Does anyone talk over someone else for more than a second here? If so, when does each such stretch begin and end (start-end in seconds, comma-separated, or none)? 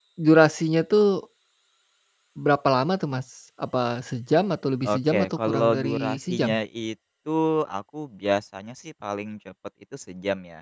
4.9-6.6